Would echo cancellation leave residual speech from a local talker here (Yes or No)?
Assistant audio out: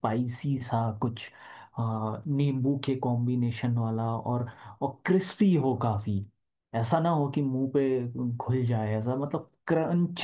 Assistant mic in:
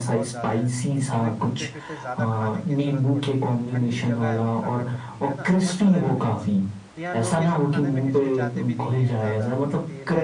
Yes